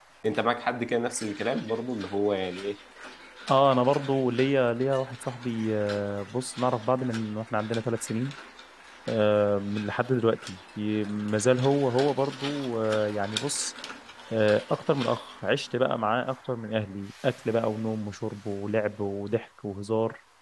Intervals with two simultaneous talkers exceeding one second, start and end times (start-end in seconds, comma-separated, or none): none